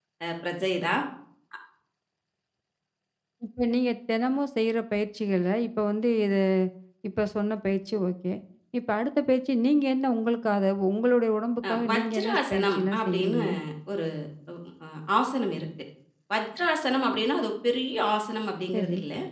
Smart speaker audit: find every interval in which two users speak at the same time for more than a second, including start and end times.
11.7-13.4

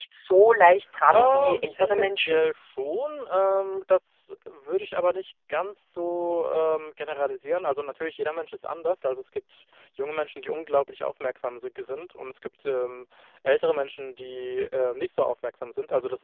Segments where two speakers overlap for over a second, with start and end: 1.1-2.4

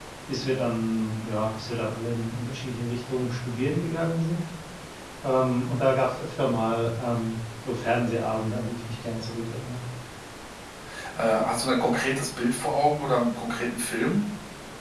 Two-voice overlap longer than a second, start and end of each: none

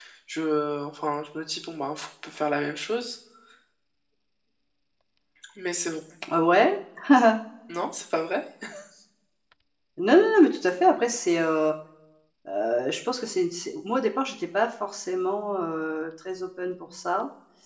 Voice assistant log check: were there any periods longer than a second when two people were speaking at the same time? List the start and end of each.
none

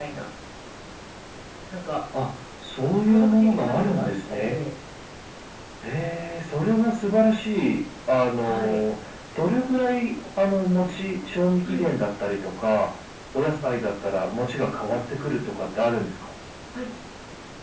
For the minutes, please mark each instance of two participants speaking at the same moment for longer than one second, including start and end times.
3.1-4.6

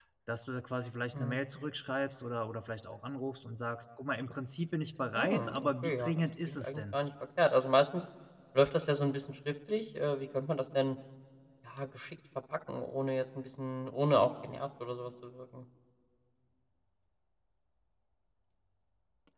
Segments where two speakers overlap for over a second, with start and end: 5.2-6.9

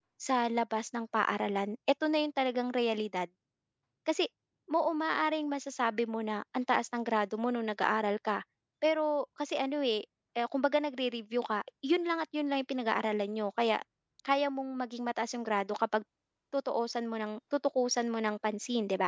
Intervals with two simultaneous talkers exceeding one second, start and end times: none

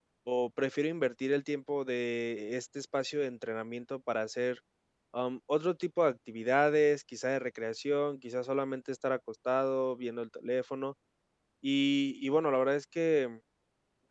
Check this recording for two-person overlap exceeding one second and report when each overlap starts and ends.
none

